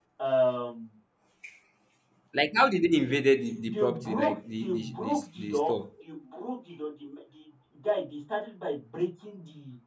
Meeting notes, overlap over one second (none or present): present